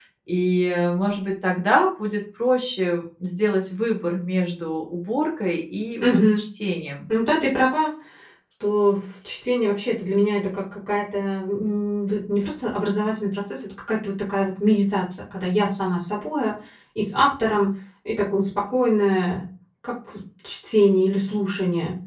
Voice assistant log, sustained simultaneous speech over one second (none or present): none